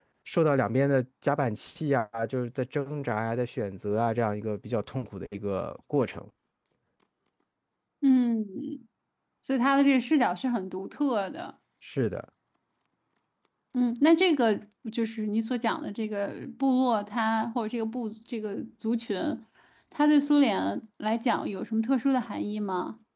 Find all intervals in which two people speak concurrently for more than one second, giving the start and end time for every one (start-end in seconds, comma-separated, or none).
none